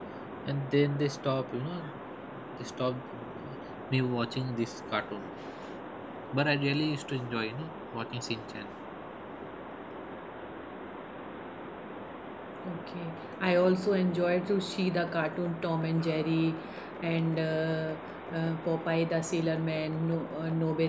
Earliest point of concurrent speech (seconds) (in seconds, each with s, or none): none